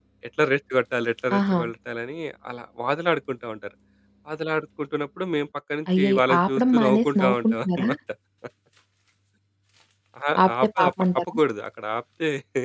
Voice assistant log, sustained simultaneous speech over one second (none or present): present